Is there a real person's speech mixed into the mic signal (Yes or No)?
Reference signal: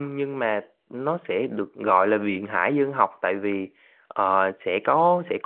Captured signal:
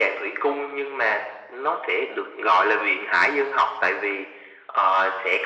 No